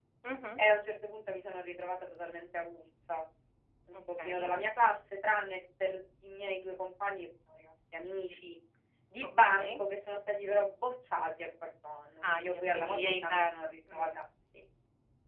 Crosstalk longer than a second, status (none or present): present